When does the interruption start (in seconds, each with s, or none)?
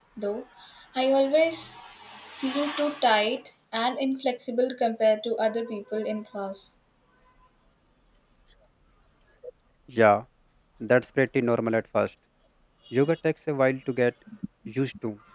none